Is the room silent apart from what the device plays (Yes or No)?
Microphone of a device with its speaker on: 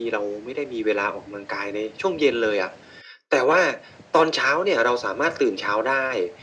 Yes